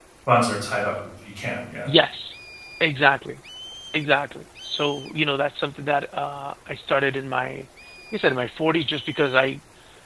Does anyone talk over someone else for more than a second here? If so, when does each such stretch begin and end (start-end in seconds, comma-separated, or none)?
none